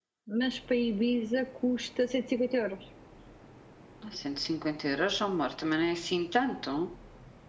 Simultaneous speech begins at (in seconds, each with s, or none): none